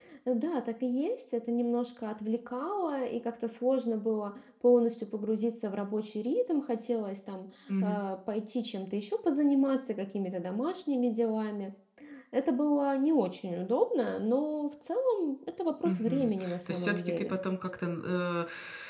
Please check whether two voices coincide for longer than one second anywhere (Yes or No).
Yes